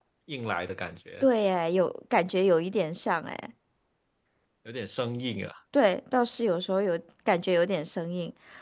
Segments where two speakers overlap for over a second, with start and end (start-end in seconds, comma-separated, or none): none